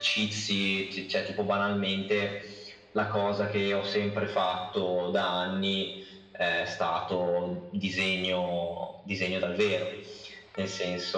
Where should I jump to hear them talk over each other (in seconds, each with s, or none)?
none